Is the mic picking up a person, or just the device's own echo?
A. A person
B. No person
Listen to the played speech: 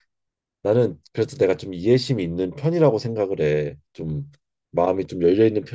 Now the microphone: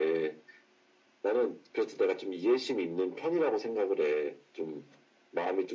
B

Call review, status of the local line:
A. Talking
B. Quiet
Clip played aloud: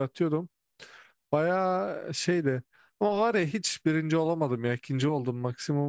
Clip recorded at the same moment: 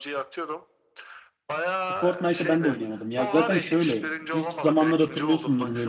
A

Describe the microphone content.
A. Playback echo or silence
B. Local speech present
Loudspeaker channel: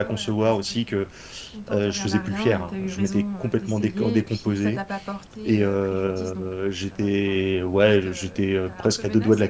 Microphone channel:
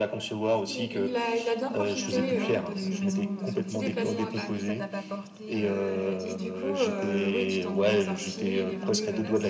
B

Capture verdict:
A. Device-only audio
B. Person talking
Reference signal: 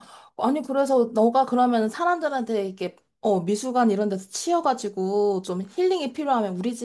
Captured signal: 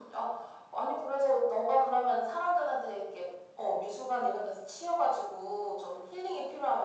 A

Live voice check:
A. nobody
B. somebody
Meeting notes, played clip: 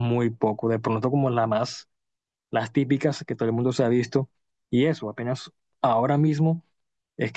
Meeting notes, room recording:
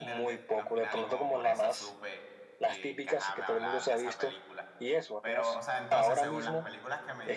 B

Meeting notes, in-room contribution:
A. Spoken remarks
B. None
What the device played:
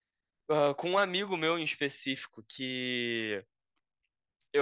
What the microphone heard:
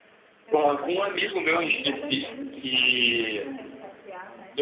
A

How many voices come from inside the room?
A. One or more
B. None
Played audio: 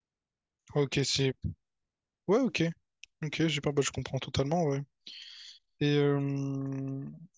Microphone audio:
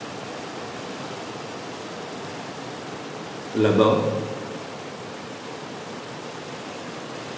A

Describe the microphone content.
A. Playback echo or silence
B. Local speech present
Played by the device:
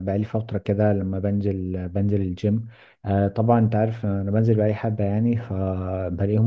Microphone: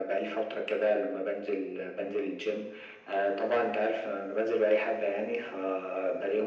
A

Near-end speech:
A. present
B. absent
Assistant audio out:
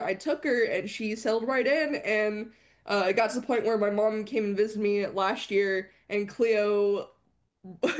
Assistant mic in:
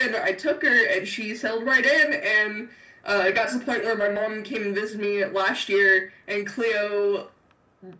B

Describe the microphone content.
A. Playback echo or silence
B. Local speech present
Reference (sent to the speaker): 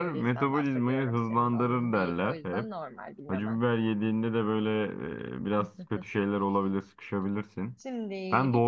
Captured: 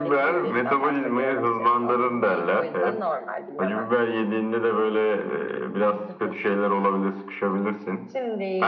A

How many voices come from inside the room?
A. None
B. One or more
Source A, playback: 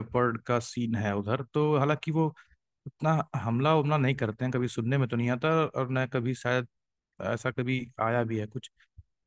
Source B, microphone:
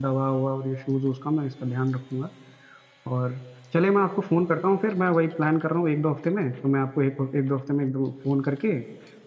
B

